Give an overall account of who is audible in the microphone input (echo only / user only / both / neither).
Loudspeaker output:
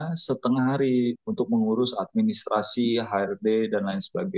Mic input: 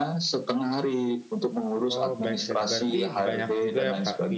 both